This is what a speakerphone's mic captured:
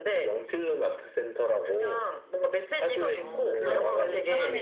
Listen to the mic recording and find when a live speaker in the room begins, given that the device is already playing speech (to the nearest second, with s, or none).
3 s